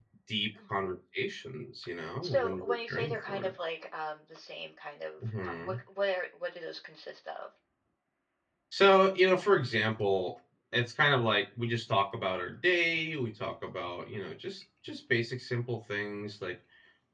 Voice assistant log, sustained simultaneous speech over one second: present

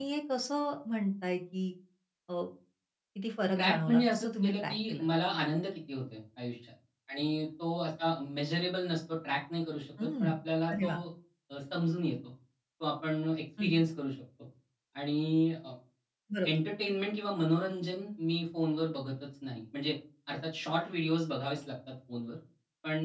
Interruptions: present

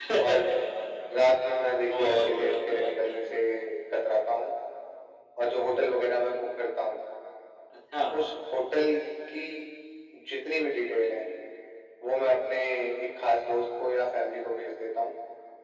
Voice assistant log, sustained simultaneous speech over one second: present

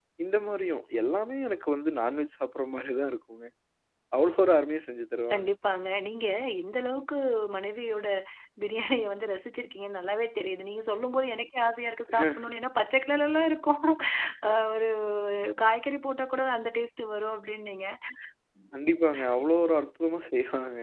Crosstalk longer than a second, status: none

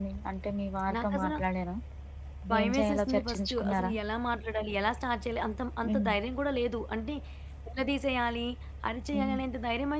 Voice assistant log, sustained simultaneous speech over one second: present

